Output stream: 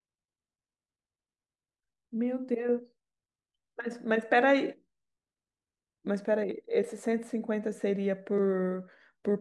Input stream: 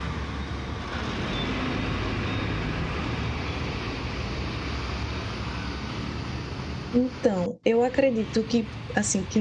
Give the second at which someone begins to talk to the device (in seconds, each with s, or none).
6.9 s